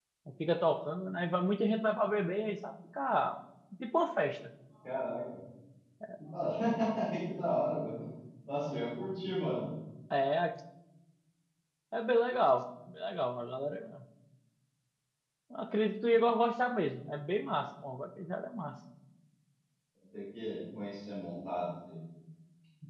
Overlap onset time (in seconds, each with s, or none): none